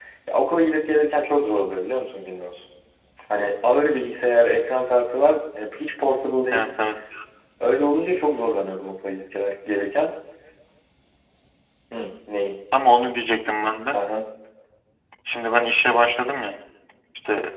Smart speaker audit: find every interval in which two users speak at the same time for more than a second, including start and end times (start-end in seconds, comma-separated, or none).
none